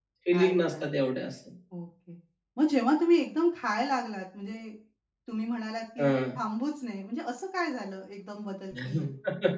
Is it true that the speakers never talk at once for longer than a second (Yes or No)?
Yes